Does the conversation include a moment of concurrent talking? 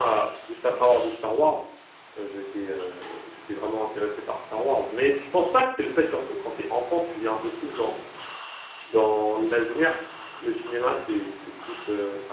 No

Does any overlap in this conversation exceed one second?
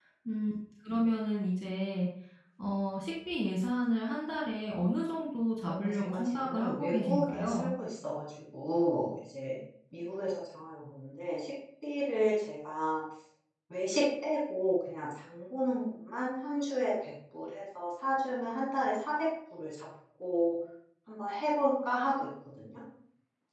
Yes, from 5.7 s

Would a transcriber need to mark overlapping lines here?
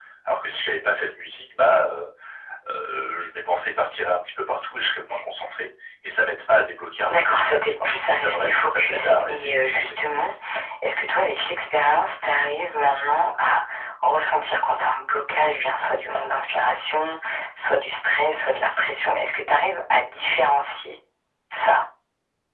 Yes, from 7.1 s

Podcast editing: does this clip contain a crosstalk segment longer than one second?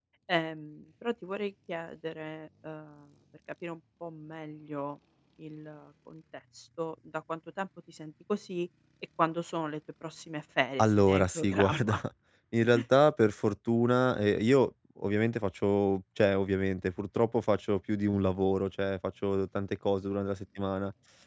Yes, from 10.8 s

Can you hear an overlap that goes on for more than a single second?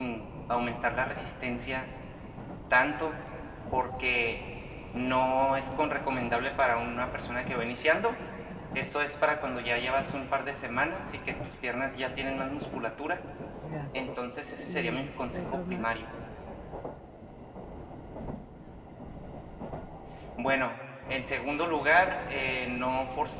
Yes, from 14.7 s

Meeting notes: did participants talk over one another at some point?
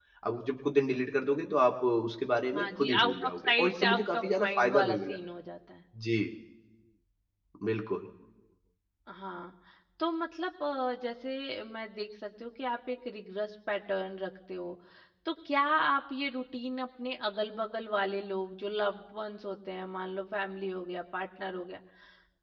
Yes, from 2.5 s

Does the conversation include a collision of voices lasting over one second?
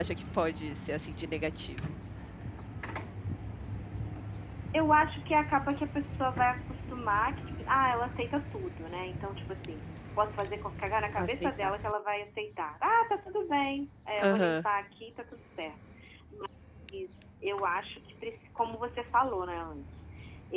No

